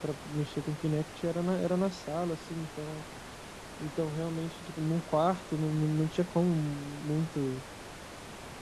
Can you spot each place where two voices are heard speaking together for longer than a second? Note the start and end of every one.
none

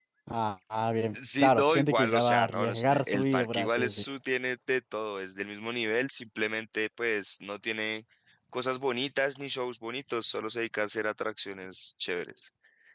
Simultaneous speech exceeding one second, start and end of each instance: 1.1-4.0

